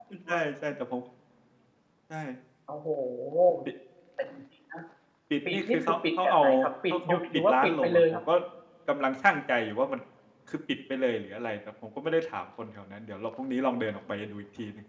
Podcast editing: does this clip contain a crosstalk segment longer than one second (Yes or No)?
Yes